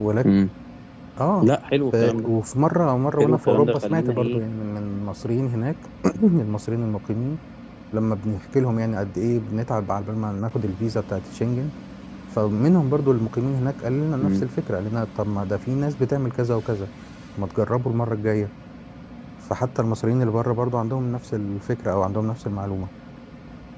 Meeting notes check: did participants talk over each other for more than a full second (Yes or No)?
Yes